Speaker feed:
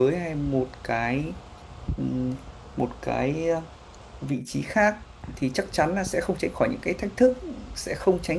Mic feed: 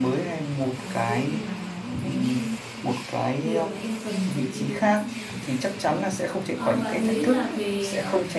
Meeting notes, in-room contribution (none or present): present